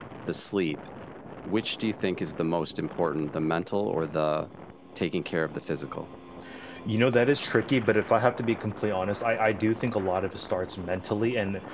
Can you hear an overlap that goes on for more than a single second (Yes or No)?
No